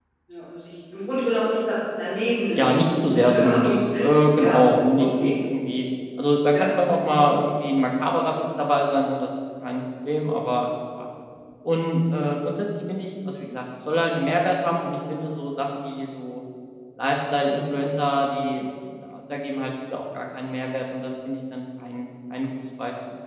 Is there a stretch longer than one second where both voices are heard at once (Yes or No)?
Yes